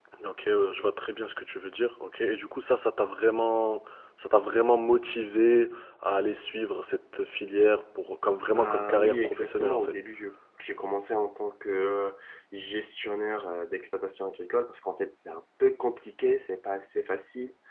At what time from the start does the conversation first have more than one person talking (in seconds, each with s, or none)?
8.5 s